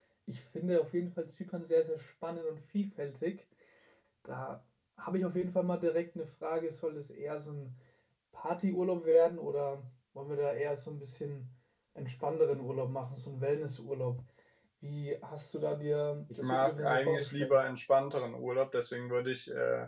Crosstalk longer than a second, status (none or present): present